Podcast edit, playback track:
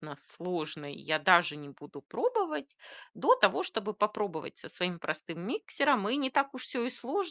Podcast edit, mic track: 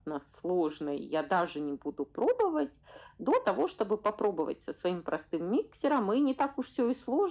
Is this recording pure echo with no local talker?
Yes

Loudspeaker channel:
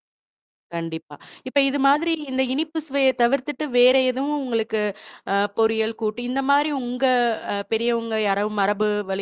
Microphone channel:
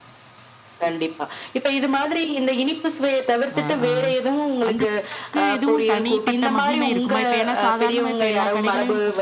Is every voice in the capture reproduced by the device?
No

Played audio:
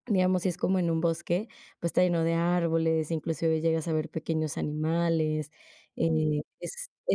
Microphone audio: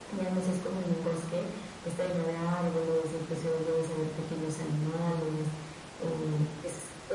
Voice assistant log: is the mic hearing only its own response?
Yes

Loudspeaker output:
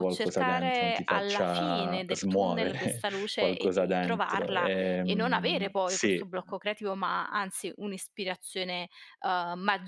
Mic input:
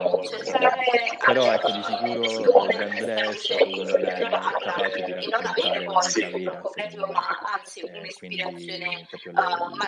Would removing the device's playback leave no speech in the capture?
No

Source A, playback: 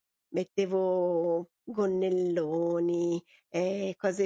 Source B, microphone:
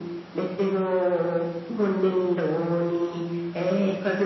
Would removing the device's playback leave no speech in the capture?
Yes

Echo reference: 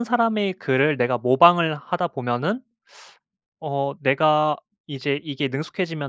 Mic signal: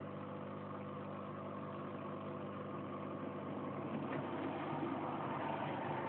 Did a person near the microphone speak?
No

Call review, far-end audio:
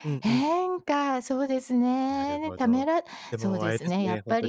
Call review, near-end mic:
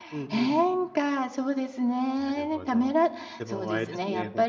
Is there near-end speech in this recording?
No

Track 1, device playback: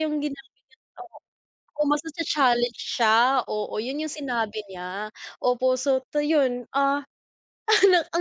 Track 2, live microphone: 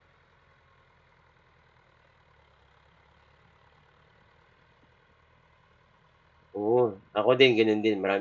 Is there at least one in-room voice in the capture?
Yes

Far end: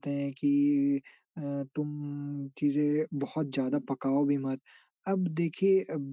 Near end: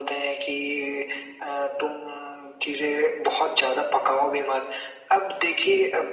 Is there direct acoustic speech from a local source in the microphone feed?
No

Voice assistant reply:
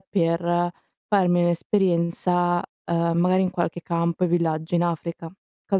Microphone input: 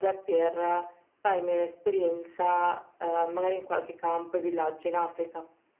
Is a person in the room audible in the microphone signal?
No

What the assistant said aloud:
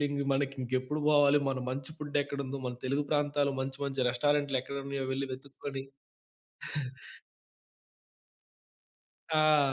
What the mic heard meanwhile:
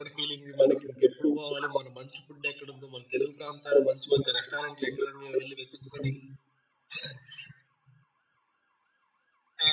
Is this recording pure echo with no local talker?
Yes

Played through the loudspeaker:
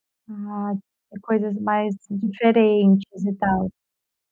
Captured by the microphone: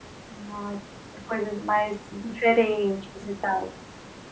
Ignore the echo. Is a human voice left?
No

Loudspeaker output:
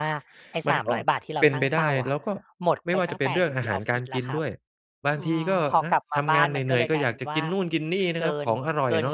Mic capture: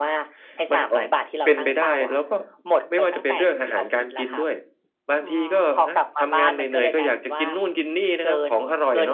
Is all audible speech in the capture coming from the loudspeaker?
Yes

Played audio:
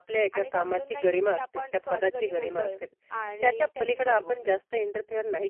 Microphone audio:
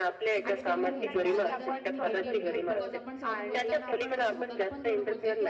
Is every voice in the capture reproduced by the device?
No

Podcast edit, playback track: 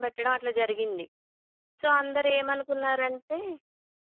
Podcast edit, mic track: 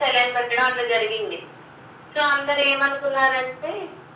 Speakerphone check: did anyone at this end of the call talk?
No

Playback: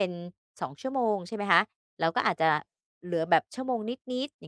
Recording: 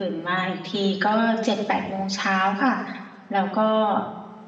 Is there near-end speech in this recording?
Yes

